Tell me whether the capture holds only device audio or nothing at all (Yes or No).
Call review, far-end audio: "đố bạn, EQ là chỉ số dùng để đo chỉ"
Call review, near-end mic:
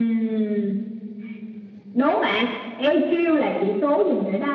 Yes